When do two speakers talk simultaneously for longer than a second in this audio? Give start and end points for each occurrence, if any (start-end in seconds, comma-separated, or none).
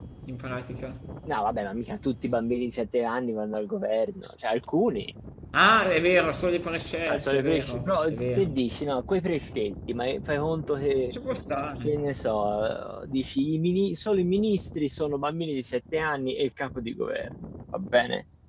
7.1-8.5